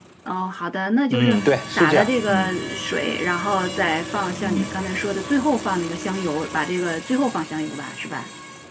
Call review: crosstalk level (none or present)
present